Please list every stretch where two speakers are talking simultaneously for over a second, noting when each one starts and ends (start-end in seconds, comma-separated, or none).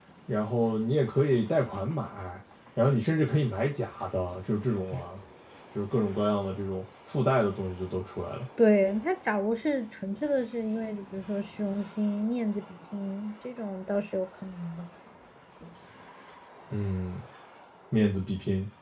none